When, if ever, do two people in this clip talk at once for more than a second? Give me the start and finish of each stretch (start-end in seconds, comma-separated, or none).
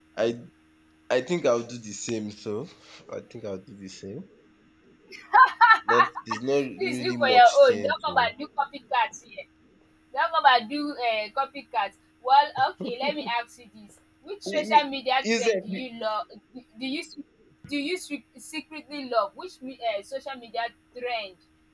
6.8-8.3